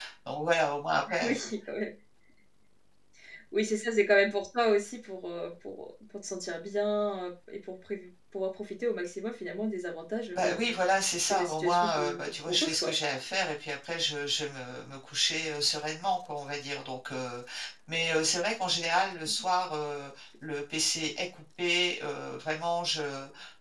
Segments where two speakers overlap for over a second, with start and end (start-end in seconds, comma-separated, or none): 11.3-12.9